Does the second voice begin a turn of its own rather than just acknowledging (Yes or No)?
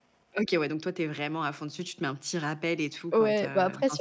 Yes